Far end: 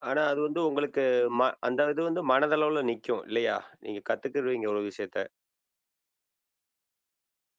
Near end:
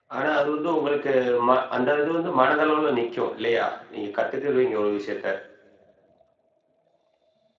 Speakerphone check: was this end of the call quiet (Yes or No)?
Yes